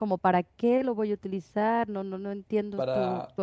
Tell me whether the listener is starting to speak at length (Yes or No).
No